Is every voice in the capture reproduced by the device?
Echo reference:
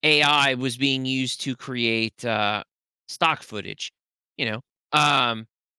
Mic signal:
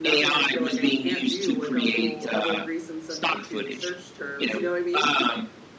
No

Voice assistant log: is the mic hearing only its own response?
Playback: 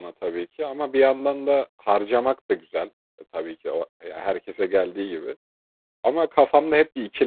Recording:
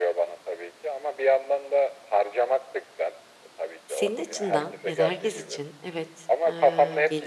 No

